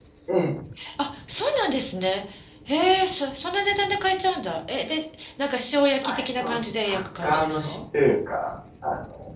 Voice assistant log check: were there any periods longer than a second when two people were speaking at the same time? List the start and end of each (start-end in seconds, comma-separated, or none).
6.0-7.8